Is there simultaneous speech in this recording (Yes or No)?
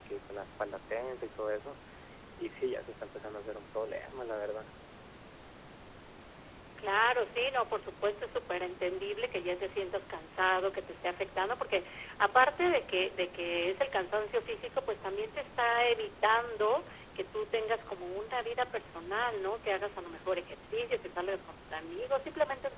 No